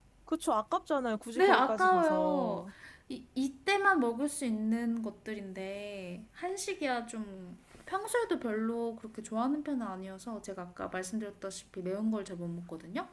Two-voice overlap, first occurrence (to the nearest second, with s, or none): 1 s